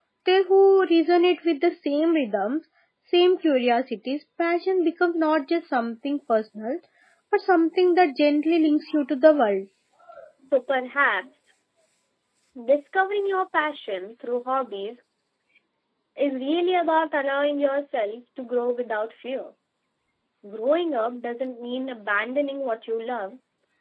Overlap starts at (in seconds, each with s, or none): none